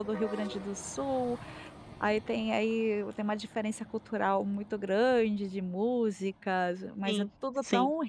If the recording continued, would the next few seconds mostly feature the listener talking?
No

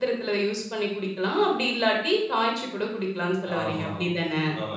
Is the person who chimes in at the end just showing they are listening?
No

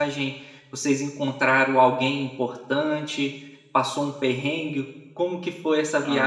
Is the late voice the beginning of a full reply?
Yes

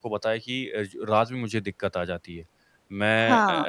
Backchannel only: Yes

